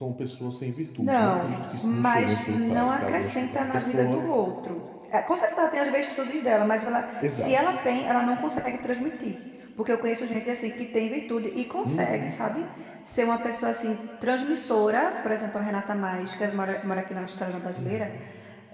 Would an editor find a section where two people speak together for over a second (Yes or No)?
Yes